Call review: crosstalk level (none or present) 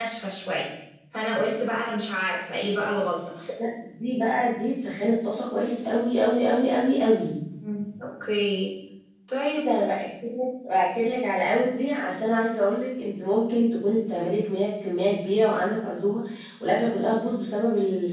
none